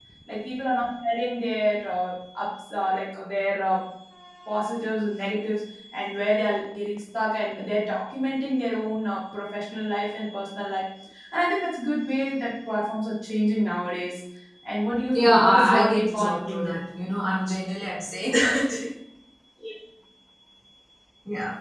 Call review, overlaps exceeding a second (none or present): present